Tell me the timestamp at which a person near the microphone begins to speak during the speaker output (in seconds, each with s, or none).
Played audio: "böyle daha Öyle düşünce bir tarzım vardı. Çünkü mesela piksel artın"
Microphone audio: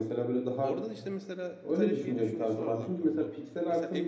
0.6 s